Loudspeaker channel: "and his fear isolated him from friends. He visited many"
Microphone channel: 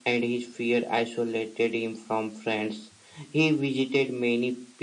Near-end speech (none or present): none